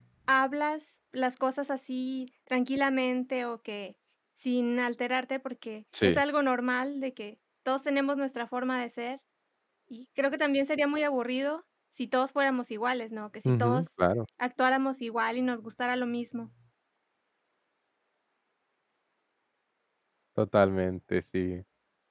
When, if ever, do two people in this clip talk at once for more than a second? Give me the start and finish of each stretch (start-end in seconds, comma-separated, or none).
none